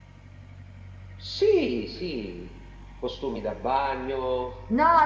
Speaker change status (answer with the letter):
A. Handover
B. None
A